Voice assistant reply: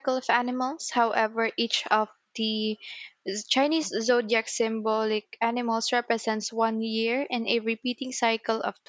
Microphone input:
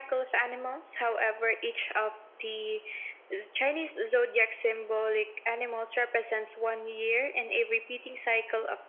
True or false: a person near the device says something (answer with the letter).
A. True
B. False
B